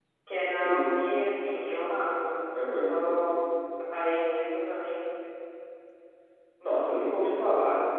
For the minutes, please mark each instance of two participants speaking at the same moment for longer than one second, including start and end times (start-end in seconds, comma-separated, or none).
none